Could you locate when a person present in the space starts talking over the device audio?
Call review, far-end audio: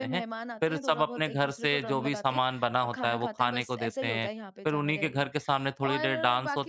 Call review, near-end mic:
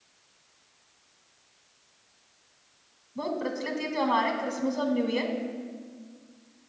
3.2 s

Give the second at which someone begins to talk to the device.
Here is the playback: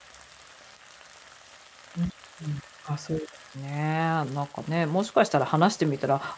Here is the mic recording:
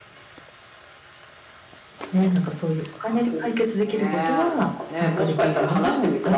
2.1 s

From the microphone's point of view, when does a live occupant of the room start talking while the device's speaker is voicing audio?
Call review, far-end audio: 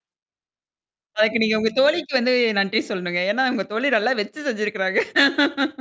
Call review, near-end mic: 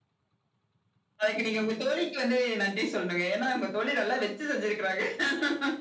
none

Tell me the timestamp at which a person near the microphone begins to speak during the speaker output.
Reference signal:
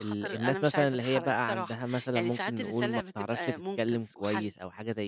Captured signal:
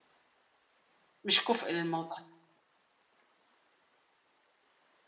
1.2 s

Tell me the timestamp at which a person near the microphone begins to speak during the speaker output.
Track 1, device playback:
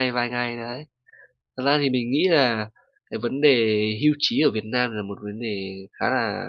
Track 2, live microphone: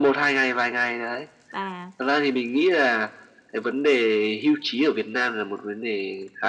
1.5 s

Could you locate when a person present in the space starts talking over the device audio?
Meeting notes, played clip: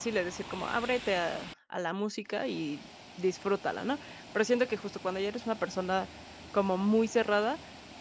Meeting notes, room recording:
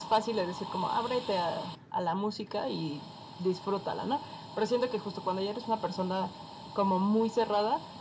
none

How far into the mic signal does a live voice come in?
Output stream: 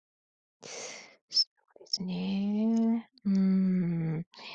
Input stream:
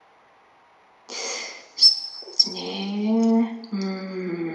none

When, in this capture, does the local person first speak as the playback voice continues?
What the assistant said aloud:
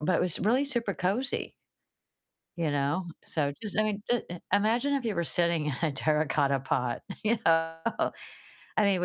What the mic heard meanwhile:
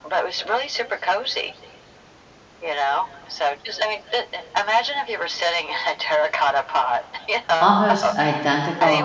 7.6 s

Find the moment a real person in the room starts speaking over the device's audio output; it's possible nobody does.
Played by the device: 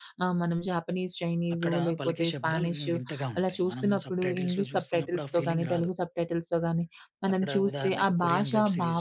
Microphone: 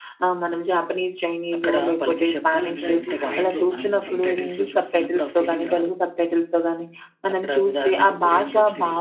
2.6 s

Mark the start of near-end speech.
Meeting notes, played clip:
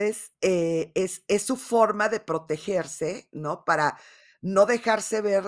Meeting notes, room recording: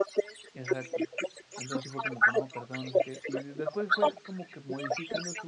0.5 s

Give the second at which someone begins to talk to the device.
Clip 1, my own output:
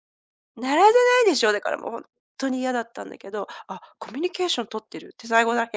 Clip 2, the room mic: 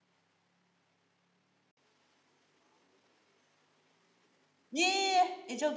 4.8 s

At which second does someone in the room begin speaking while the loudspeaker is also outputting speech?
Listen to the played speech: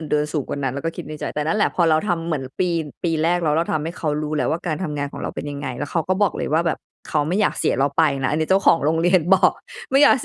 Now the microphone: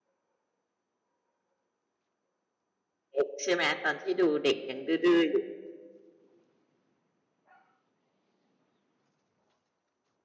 3.2 s

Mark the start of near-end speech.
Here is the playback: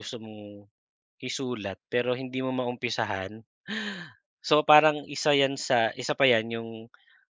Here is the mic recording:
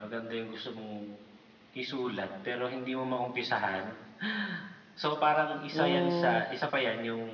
5.7 s

